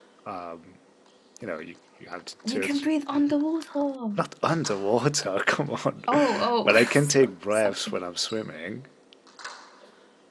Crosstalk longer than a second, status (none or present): present